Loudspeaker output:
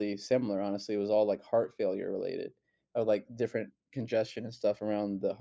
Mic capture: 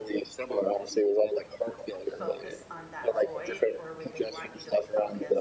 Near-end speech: present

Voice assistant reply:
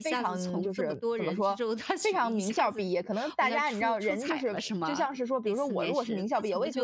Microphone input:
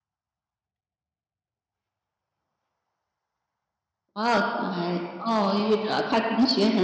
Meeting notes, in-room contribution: present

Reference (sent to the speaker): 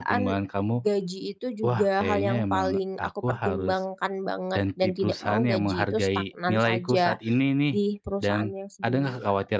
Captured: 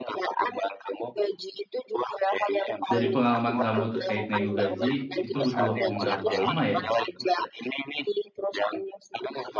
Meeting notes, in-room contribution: present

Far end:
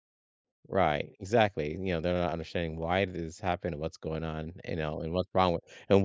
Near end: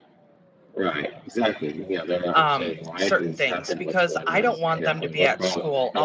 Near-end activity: present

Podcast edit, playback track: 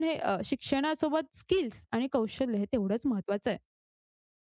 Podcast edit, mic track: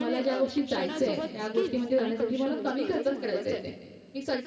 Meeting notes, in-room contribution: present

